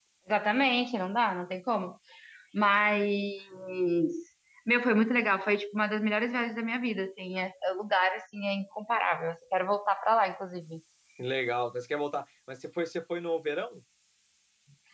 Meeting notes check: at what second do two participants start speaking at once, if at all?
none

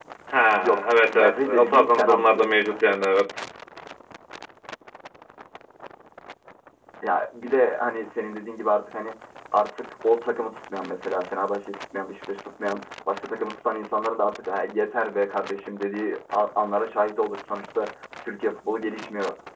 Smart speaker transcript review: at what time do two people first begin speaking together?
0.6 s

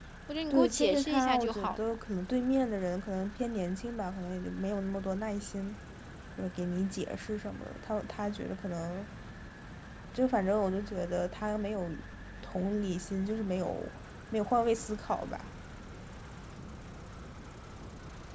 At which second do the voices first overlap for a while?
0.5 s

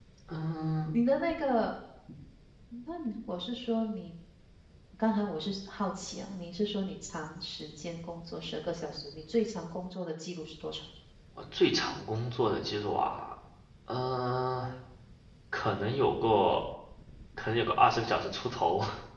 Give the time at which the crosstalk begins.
none

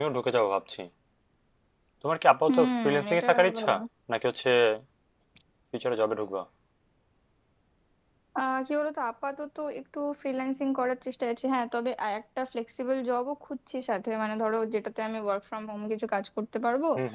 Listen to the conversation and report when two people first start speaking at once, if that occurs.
2.5 s

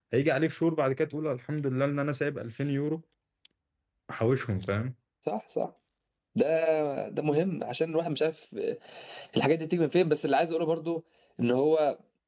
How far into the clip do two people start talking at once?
none

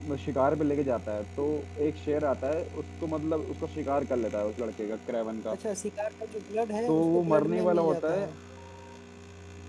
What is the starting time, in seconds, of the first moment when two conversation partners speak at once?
6.9 s

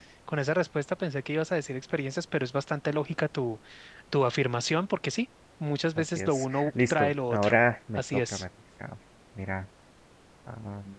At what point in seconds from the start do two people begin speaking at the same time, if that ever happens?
6.0 s

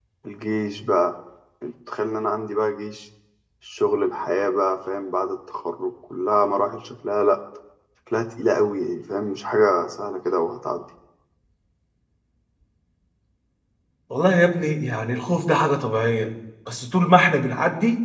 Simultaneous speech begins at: none

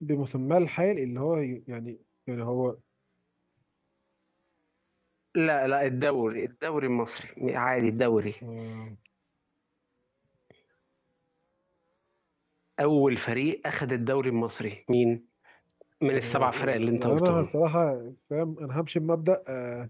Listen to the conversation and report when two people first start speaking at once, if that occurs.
16.1 s

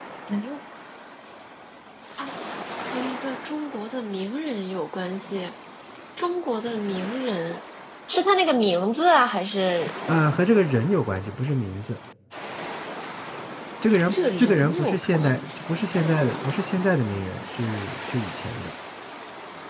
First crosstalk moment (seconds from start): 14.1 s

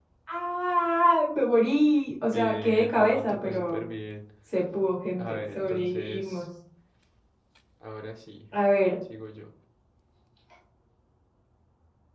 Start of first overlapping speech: 2.3 s

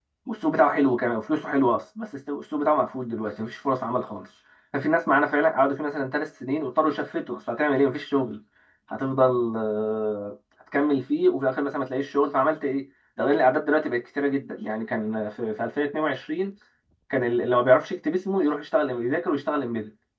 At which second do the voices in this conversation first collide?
none

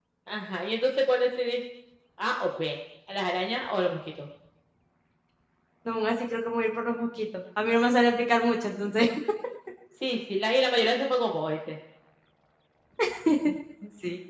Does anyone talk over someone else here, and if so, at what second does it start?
none

